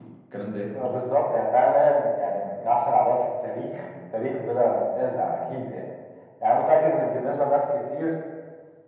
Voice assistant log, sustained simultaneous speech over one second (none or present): none